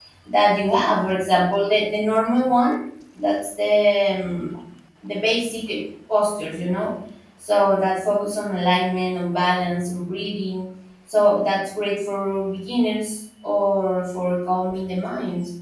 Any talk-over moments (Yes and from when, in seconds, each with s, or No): No